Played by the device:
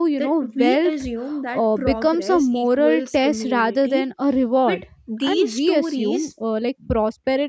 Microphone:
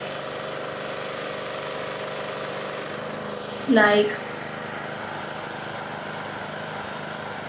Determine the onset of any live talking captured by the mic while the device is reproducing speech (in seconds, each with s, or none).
3.7 s